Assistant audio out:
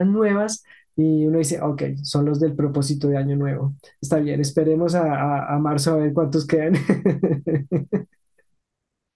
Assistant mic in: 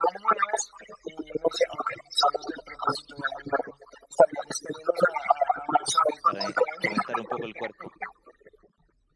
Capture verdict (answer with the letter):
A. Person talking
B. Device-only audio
A